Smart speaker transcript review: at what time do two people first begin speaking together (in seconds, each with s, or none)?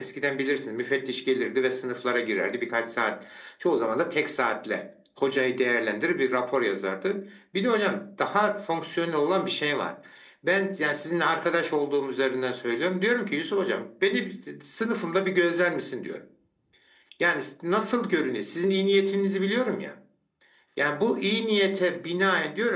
none